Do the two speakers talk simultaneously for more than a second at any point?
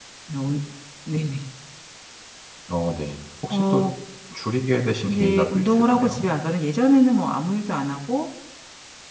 Yes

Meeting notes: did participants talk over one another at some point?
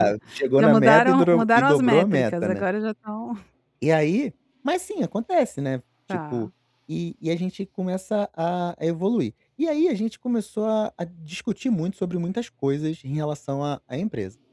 Yes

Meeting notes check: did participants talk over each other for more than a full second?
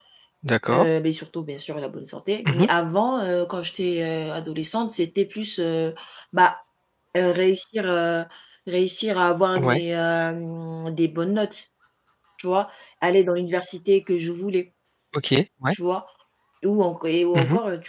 No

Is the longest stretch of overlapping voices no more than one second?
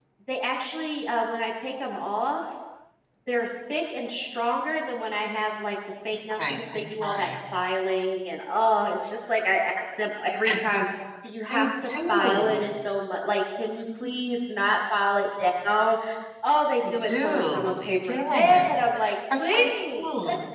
No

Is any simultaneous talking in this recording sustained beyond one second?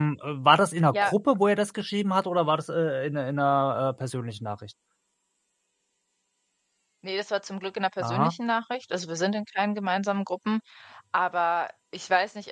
No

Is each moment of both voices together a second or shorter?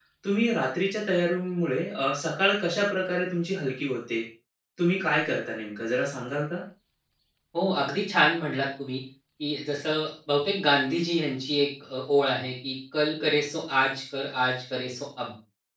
Yes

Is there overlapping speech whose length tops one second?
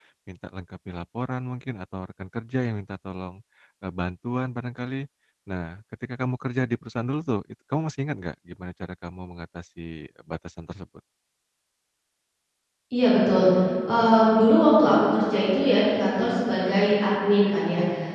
No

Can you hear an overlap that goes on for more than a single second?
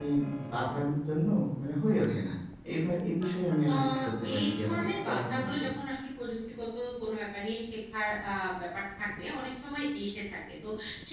Yes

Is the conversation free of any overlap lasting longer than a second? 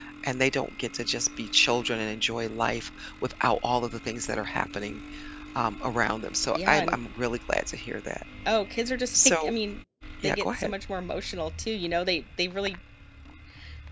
Yes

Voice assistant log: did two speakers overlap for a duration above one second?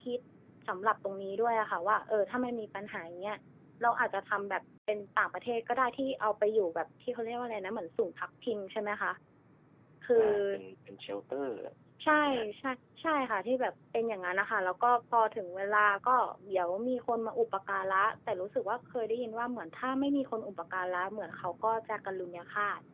No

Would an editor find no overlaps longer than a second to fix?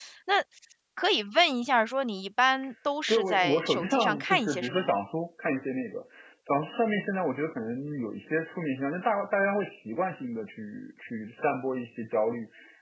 No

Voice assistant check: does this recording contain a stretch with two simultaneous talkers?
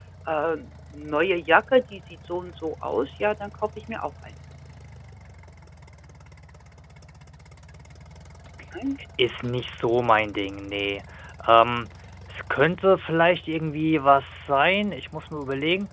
No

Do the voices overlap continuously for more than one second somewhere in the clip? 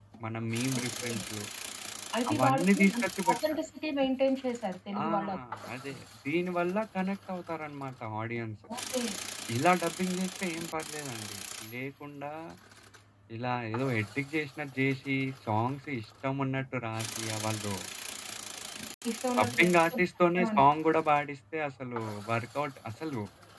Yes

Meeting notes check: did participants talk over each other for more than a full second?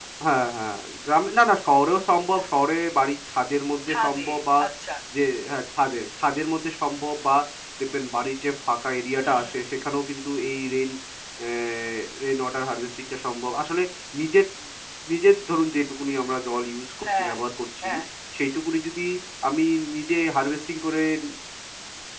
No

